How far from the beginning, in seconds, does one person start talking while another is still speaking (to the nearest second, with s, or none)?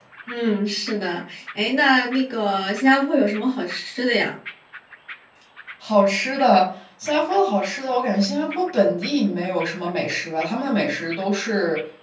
none